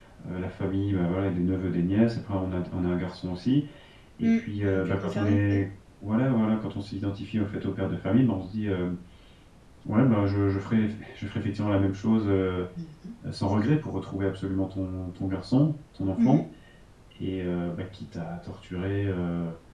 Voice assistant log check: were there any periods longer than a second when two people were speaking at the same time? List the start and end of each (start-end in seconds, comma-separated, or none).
4.2-5.6